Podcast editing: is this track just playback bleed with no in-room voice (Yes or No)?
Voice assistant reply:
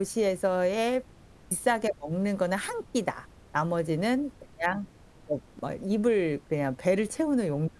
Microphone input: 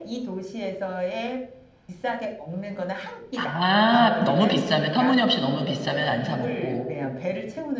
No